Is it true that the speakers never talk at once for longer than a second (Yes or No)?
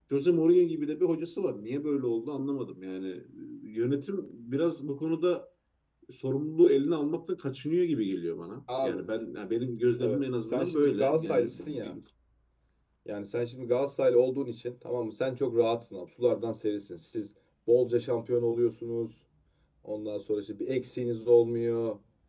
No